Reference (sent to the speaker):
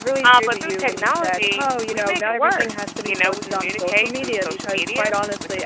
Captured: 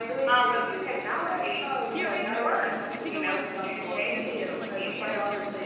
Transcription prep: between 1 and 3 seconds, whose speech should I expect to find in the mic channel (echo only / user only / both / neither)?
both